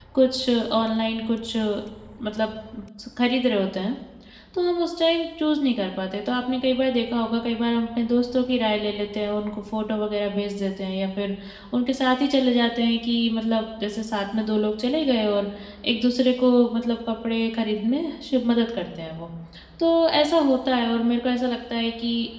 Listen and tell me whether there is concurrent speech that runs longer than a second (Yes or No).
No